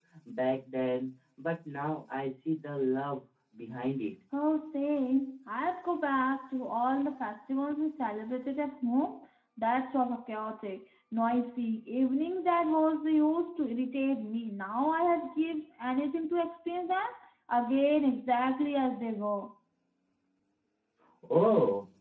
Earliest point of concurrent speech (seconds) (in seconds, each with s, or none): none